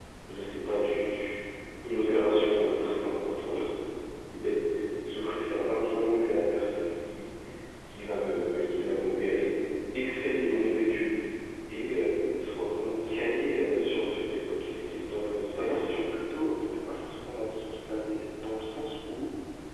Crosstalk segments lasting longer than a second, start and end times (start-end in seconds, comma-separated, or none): none